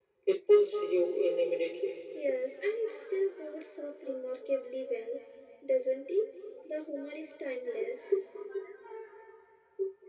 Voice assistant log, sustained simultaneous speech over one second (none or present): none